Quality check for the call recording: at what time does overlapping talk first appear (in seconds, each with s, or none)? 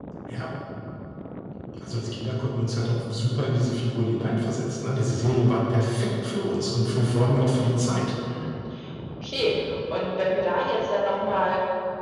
none